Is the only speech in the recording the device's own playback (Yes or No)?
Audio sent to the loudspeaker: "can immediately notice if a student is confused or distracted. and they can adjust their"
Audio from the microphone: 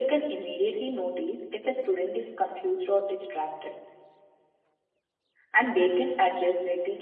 Yes